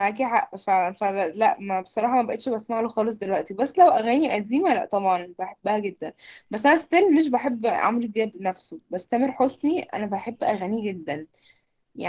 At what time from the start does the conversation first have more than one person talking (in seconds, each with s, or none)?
none